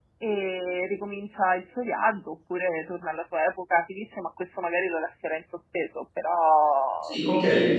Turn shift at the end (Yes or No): Yes